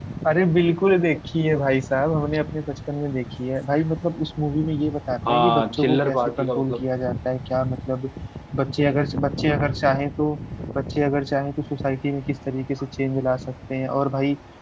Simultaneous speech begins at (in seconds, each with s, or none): 5.2 s